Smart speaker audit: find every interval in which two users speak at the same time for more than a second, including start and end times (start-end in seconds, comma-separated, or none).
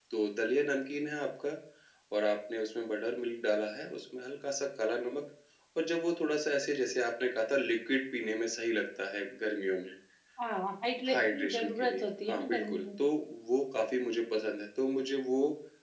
11.1-12.8